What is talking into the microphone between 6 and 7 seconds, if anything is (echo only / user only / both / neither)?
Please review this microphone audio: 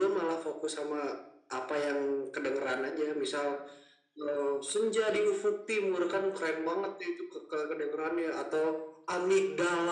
echo only